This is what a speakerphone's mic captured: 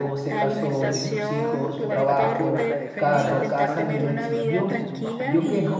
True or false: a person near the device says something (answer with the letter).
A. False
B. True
B